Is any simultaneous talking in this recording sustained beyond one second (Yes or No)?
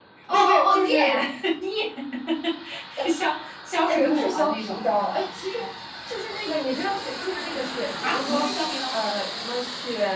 Yes